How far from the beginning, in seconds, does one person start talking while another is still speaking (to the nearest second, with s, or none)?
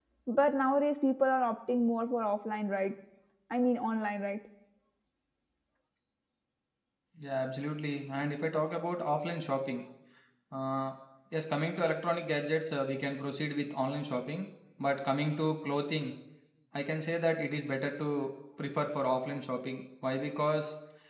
none